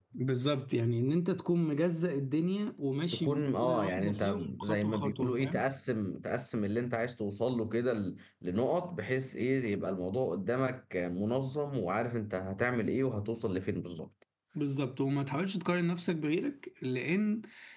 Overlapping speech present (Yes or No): Yes